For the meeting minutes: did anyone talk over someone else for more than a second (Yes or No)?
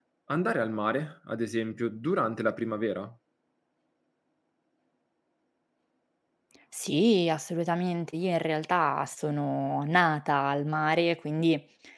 No